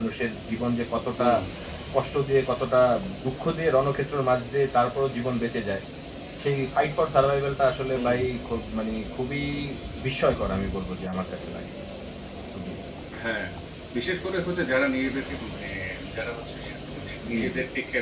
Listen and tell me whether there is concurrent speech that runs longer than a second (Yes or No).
No